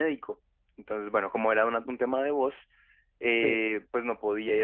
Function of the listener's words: listening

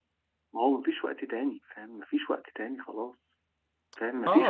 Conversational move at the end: taking over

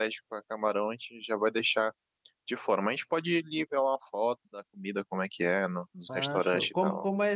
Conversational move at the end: taking over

